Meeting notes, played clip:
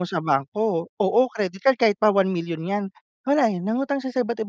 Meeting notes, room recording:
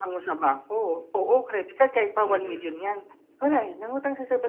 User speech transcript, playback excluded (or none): Mm.